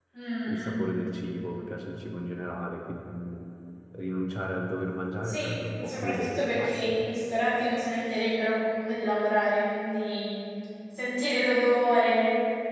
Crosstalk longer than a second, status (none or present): present